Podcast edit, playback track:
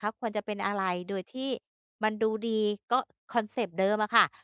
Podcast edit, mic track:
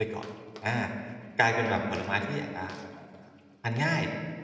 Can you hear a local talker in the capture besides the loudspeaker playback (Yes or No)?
Yes